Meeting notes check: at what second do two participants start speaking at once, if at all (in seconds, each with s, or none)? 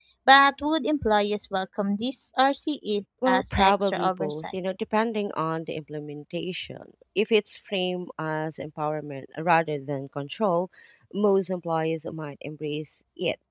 3.2 s